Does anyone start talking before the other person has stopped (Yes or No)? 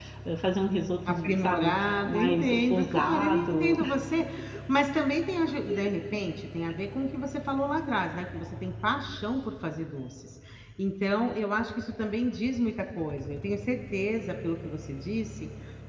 Yes